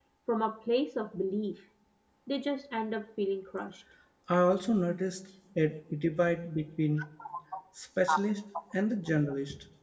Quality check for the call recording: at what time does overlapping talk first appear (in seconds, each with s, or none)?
none